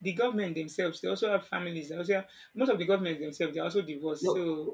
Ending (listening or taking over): taking over